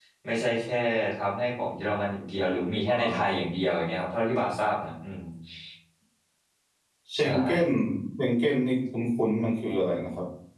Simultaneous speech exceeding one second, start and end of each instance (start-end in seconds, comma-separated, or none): none